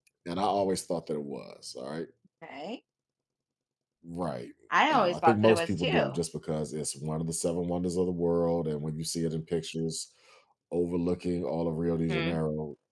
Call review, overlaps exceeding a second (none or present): present